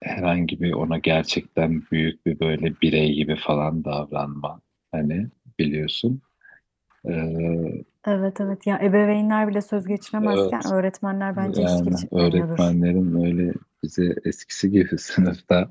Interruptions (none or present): present